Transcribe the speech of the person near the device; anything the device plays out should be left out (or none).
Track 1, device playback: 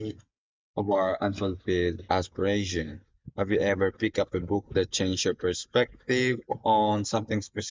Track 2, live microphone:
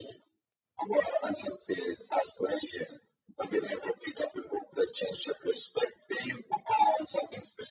none